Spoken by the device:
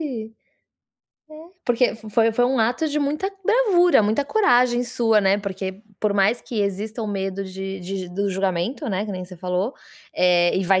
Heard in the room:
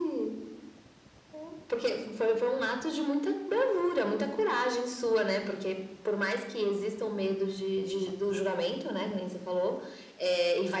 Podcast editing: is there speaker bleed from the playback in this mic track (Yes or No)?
Yes